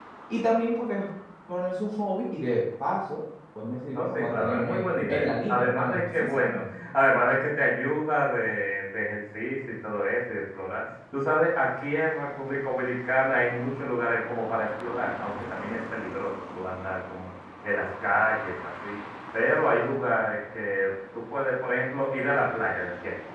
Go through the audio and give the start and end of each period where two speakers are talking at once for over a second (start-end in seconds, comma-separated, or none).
3.9-6.7